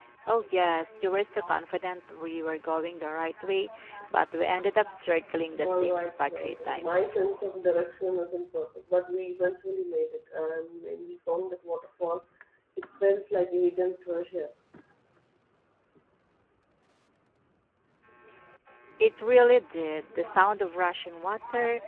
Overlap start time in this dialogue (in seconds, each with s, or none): 5.6 s